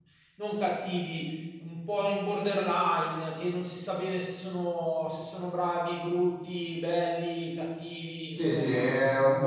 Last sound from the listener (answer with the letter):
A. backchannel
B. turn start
B